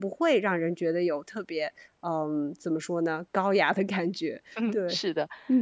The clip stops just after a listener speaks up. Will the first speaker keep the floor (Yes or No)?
No